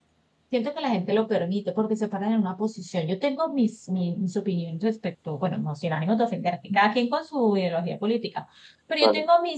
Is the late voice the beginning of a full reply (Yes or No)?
No